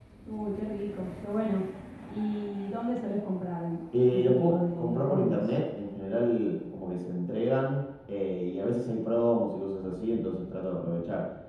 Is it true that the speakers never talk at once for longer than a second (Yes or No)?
No